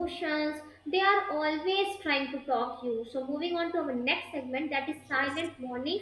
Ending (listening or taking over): listening